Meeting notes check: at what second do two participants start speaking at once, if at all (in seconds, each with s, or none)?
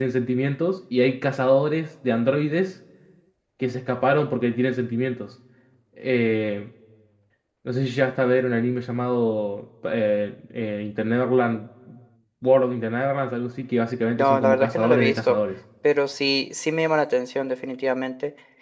14.1 s